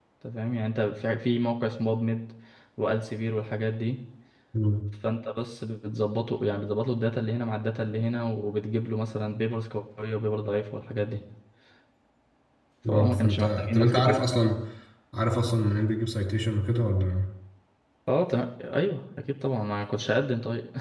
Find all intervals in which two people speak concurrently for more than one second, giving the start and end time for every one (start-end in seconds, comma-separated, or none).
12.9-14.2